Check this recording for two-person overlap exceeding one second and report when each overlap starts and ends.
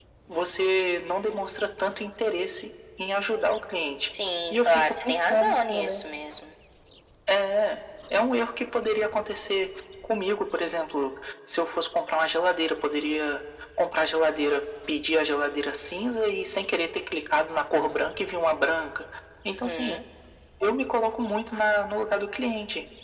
4.5-6.0

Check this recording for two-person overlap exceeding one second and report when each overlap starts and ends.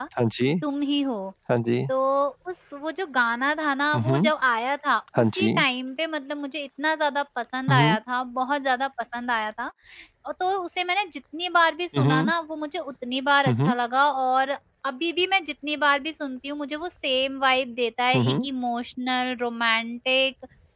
none

